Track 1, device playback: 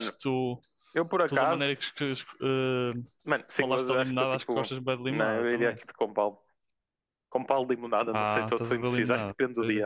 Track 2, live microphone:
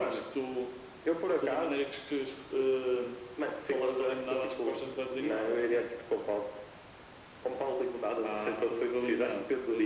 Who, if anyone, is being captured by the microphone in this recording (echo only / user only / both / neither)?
echo only